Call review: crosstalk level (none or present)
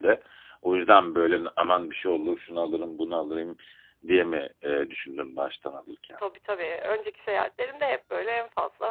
none